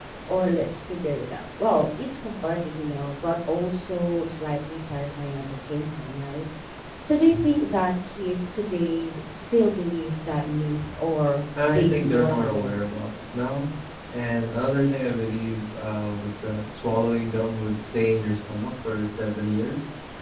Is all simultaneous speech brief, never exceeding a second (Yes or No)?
No